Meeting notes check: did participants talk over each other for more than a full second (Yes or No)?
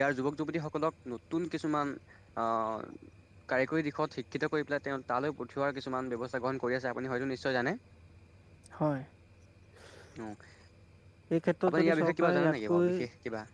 Yes